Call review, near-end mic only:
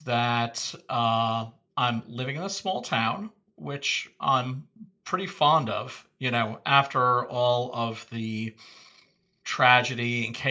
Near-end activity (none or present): present